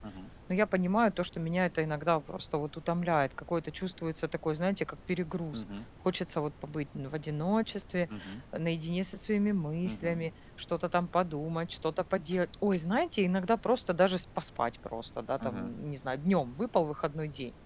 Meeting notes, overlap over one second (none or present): none